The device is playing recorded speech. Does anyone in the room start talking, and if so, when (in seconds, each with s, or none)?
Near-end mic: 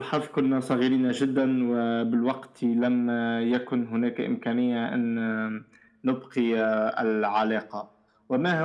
none